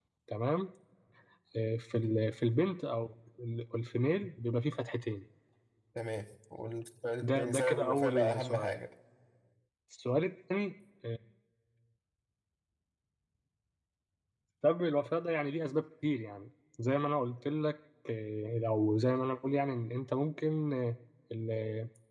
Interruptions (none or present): present